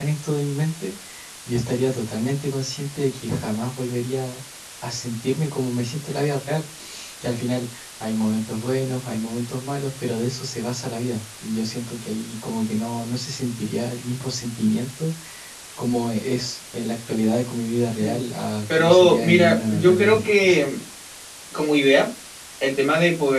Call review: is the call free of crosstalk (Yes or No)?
No